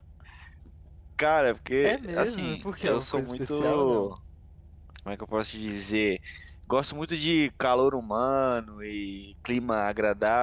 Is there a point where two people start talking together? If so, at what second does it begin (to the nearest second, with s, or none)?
2 s